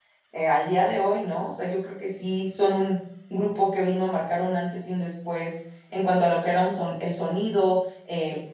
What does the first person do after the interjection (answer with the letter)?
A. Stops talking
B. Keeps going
B